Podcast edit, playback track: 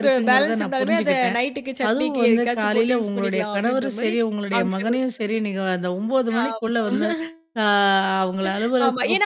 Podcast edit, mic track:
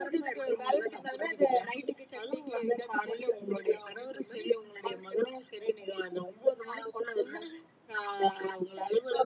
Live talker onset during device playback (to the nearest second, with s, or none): none